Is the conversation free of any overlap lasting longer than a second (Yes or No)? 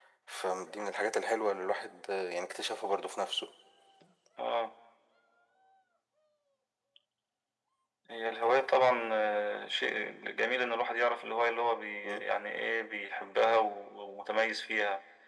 Yes